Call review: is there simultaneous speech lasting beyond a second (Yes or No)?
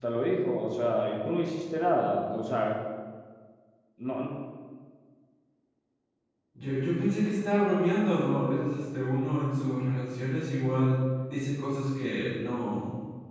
No